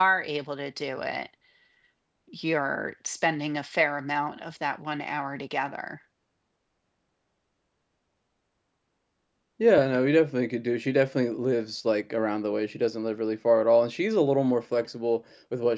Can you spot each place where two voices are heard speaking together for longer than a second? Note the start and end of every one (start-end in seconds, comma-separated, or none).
none